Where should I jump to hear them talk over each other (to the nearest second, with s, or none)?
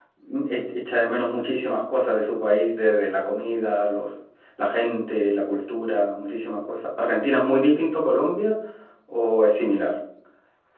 none